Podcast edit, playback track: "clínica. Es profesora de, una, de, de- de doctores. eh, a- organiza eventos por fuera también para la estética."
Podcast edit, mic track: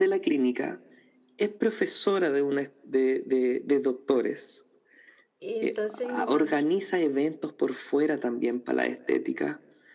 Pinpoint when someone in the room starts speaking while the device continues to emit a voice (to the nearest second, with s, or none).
5 s